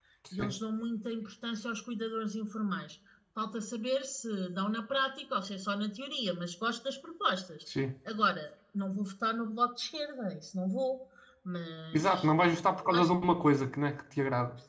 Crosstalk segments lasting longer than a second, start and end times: none

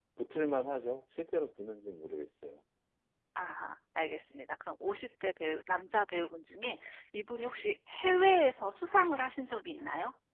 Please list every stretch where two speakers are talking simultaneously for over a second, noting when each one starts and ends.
none

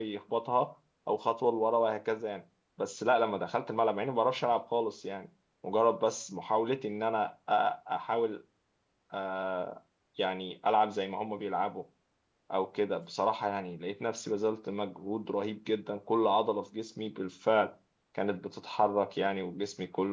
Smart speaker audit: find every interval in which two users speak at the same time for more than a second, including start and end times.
none

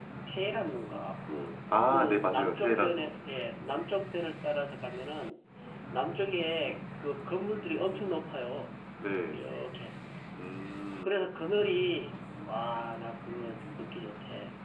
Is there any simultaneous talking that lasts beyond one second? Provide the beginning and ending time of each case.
1.9-3.1

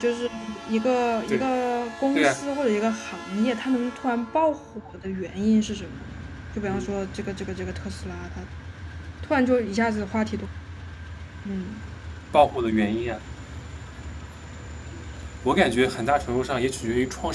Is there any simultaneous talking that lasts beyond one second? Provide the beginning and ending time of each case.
none

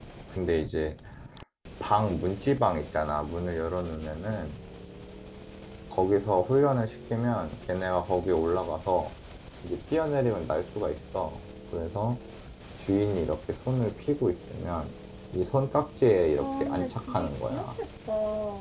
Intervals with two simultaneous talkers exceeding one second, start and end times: 16.4-17.6

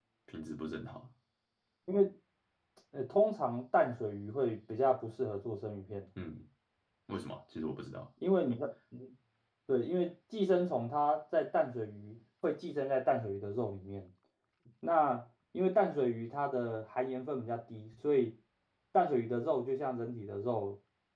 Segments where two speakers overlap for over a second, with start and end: none

